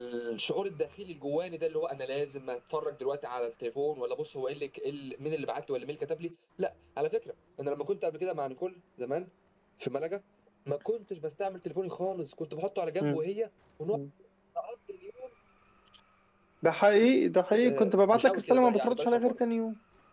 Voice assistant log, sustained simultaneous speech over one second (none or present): present